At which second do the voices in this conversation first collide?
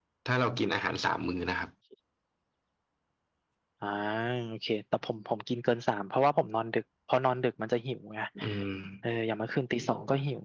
none

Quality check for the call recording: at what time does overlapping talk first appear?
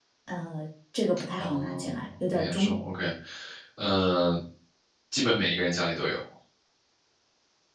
1.4 s

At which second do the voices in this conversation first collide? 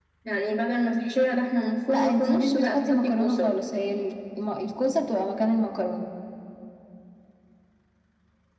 1.9 s

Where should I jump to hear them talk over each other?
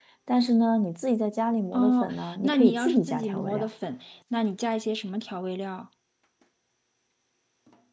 1.7 s

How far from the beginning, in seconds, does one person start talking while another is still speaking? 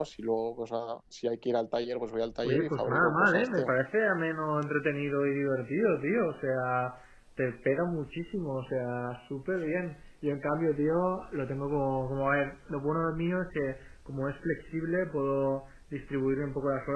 2.4 s

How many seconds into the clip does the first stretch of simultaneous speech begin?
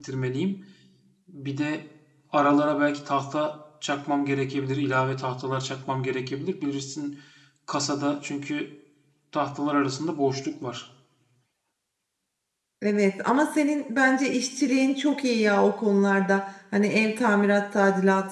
none

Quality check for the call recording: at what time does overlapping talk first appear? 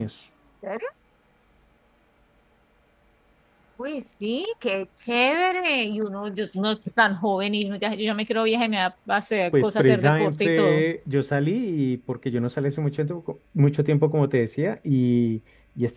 9.5 s

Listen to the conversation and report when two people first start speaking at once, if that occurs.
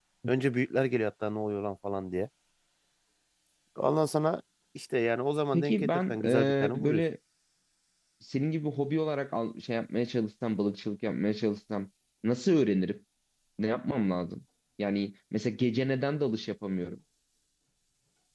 5.5 s

